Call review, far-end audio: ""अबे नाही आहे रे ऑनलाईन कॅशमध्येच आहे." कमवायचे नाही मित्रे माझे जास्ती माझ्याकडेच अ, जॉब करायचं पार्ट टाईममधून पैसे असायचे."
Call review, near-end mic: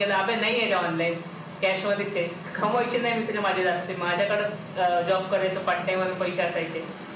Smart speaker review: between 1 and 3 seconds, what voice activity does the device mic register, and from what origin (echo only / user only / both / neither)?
echo only